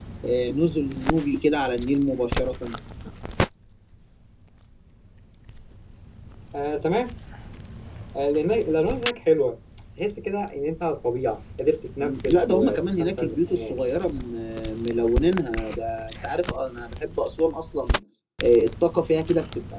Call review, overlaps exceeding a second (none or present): present